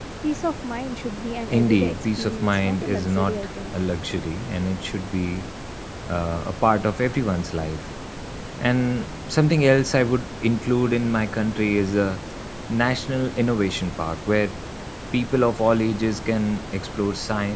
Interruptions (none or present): present